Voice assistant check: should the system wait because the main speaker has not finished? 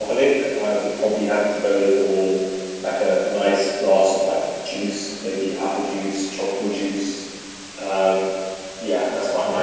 Yes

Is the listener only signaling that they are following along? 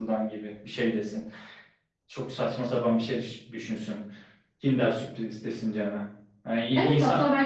No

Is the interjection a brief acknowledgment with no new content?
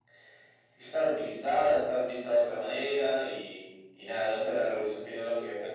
Yes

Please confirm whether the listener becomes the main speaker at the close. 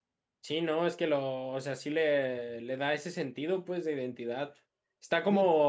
No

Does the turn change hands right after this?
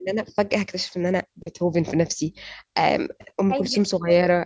No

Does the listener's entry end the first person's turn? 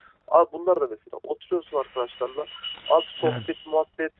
No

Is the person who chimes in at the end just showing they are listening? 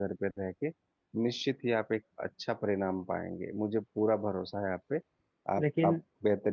Yes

